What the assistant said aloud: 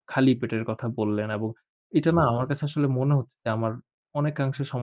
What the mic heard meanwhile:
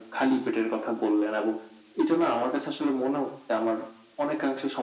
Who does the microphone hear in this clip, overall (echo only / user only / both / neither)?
echo only